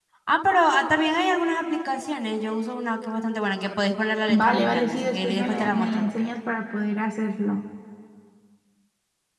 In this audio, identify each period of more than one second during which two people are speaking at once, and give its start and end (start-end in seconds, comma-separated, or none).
4.3-6.3